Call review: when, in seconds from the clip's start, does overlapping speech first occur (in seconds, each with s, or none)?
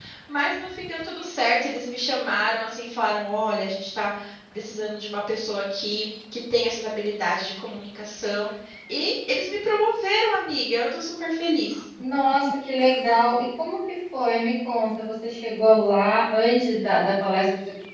none